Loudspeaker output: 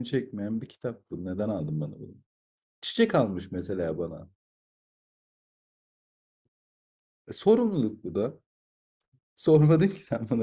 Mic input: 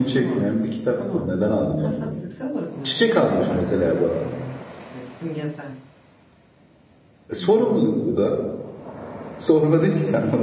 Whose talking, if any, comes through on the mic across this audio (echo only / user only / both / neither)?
both